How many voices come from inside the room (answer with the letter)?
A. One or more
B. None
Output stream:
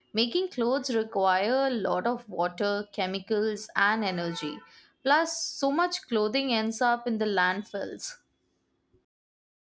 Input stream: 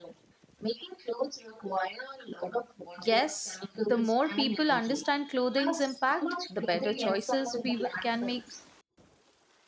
A